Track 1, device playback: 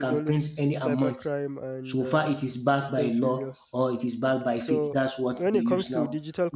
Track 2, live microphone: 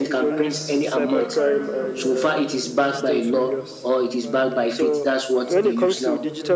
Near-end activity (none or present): present